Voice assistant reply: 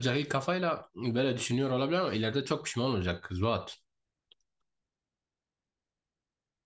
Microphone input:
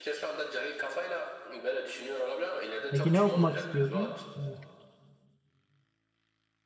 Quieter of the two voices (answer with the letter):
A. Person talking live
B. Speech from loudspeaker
B